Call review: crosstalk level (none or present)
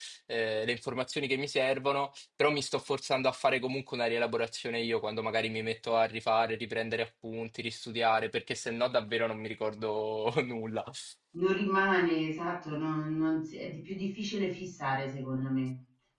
none